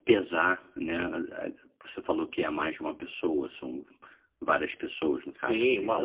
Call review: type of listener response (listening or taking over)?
taking over